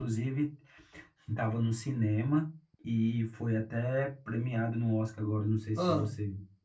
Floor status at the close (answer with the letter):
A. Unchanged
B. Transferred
A